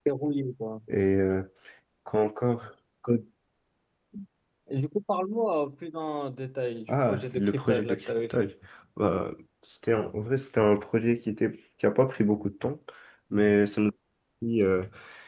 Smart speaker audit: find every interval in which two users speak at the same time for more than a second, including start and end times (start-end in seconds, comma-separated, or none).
6.9-8.5